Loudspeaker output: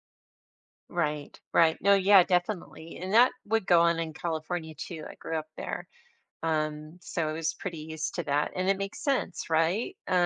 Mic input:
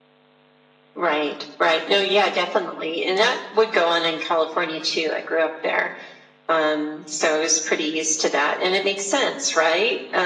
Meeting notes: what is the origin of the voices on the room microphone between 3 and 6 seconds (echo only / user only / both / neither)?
echo only